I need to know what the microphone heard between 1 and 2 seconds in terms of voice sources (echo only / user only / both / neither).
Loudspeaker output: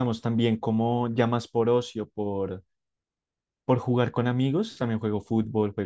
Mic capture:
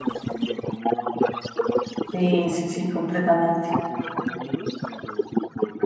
echo only